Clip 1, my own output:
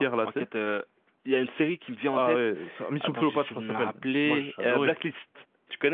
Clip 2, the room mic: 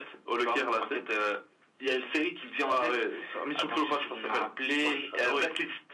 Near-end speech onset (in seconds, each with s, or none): none